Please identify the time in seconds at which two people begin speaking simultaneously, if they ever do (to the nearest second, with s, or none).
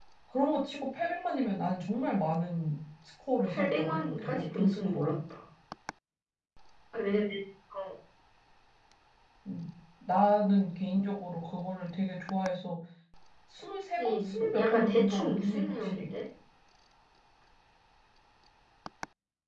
3 s